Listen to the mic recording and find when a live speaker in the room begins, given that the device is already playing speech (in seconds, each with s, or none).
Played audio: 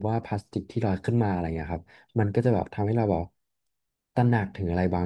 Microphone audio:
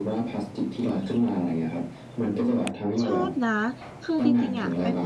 3.0 s